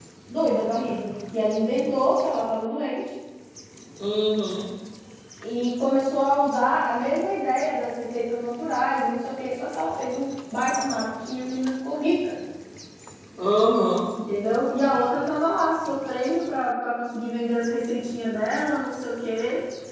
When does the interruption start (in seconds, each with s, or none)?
none